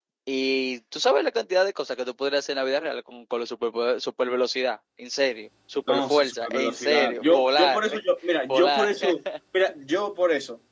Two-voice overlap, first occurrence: 6 s

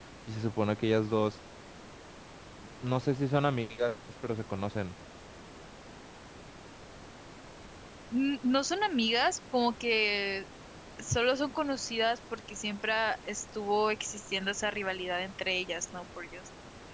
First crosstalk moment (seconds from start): none

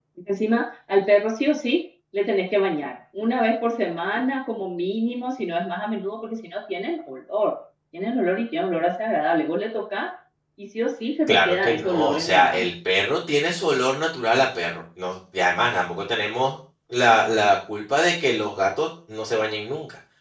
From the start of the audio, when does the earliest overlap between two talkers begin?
11 s

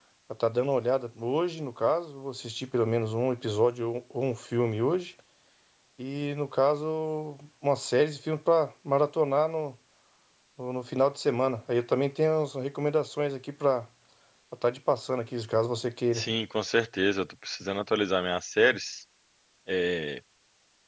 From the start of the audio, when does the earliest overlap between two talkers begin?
none

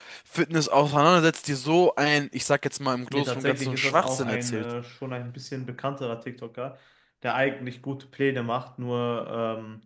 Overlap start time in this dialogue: 3 s

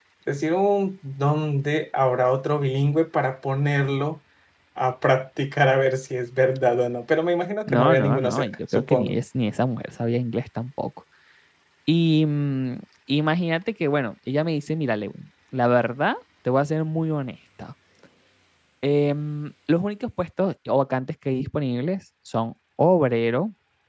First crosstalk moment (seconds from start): 8 s

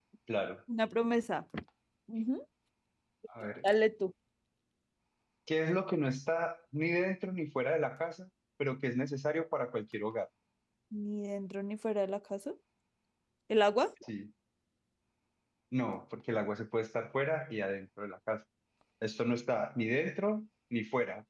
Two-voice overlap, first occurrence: none

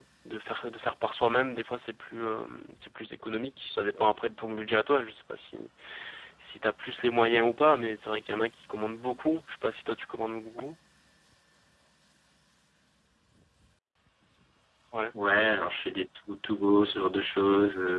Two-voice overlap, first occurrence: none

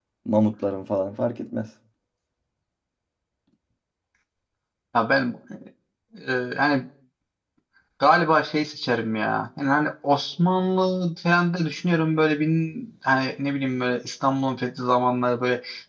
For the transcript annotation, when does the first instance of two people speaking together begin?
none

